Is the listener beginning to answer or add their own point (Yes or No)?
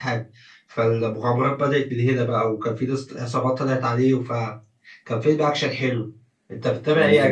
Yes